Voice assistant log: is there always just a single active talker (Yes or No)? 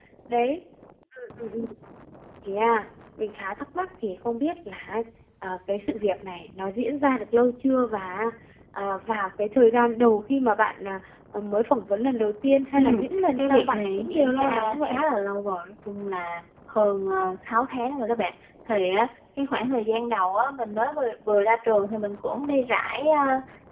No